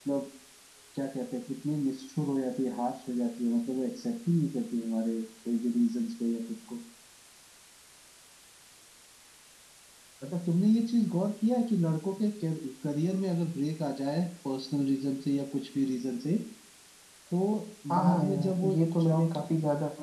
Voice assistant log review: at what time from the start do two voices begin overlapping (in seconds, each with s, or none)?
18.0 s